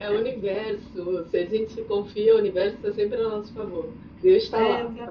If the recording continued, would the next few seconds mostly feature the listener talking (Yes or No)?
No